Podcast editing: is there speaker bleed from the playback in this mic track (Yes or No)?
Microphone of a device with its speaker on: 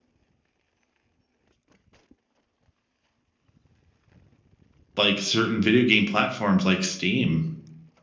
No